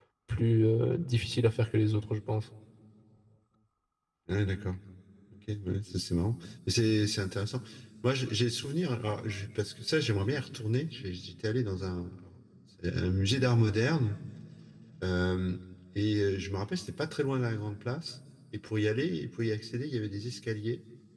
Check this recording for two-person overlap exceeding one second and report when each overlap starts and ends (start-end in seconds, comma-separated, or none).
none